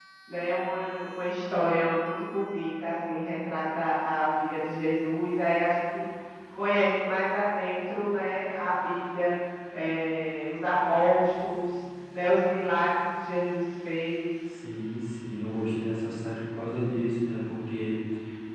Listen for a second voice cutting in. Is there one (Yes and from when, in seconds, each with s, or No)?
No